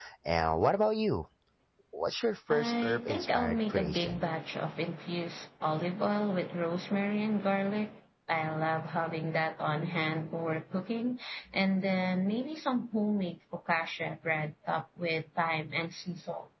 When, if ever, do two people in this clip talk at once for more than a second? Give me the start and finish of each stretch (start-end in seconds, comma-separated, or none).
2.5-4.2